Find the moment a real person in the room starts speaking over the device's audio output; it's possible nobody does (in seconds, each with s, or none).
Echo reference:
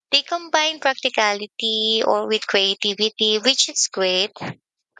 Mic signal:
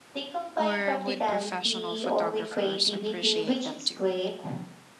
0.6 s